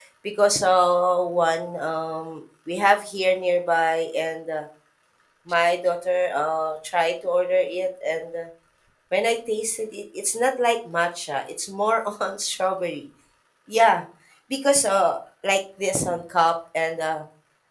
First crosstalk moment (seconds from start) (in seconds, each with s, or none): none